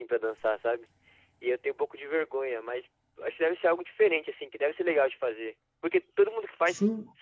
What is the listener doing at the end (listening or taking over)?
listening